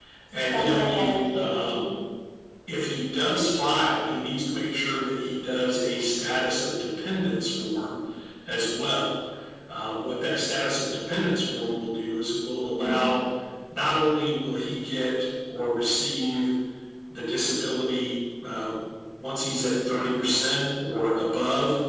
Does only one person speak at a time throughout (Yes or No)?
No